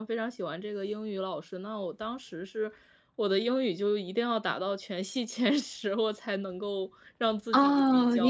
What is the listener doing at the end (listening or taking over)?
taking over